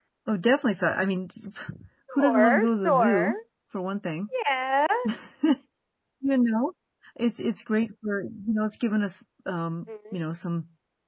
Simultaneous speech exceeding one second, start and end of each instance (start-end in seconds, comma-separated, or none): 2.1-3.3